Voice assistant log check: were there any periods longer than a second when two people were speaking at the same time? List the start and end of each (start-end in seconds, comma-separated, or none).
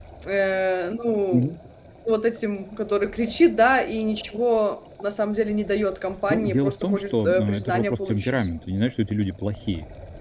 6.3-8.5